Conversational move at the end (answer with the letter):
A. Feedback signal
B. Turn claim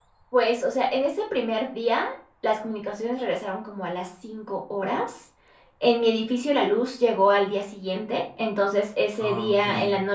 A